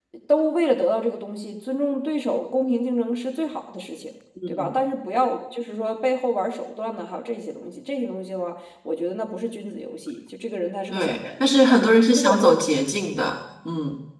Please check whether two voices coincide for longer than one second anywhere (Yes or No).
No